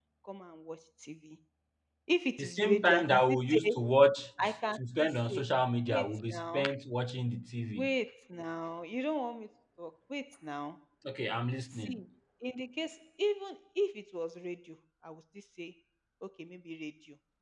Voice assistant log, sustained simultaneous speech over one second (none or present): present